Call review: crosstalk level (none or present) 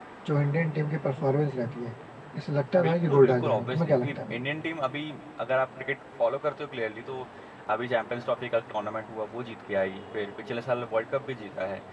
present